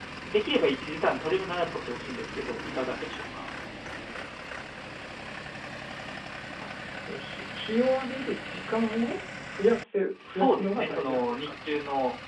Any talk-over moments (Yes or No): Yes